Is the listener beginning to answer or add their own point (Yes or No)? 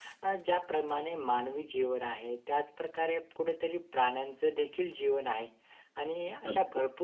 No